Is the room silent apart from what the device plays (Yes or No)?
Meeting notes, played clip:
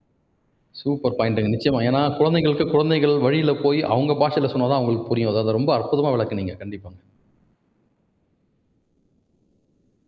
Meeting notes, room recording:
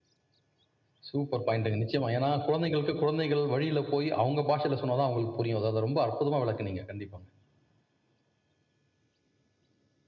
Yes